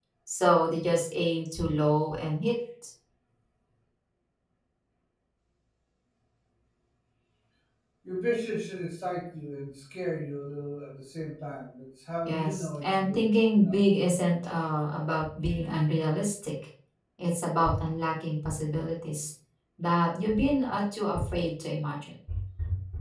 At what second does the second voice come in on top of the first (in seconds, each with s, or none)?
12.2 s